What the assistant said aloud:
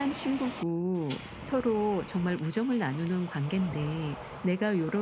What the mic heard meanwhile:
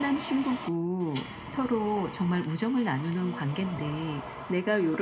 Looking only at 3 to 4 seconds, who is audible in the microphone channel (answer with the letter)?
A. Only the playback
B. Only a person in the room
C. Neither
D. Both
D